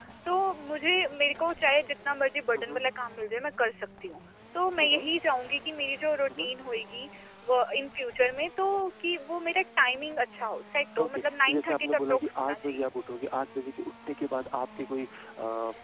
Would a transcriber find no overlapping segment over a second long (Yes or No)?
No